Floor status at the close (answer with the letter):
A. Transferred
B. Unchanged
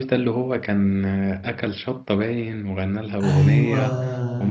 B